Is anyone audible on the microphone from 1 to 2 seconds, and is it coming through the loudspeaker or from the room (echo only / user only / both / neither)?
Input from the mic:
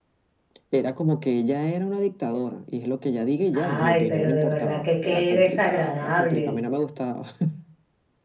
echo only